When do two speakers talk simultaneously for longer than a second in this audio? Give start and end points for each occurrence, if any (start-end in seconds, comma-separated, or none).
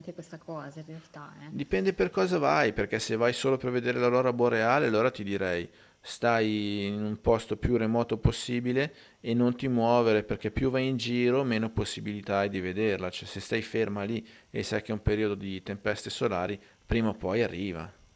none